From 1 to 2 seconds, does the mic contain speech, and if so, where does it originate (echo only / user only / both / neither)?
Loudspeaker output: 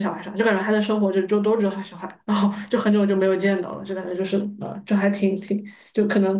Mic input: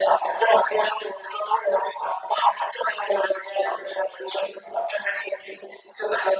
echo only